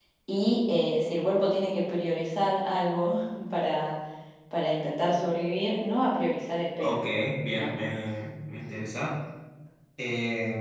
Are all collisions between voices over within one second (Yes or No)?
Yes